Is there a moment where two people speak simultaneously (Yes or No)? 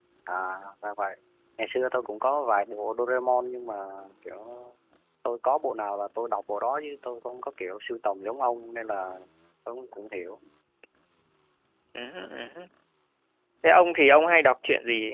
No